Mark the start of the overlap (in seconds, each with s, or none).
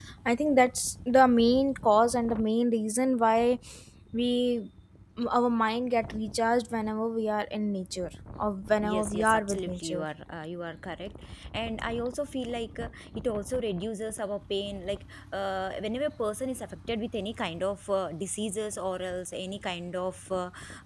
8.8 s